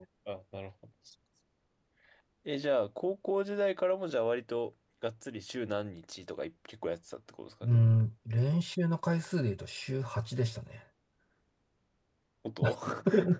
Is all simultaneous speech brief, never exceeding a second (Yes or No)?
Yes